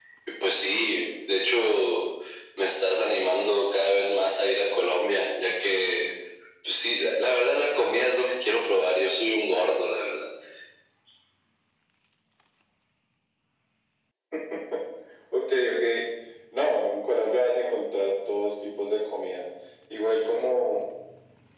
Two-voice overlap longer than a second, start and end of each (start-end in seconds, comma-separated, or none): none